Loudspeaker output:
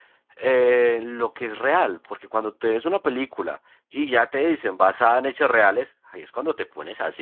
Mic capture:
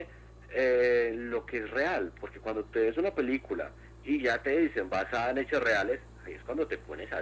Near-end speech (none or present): none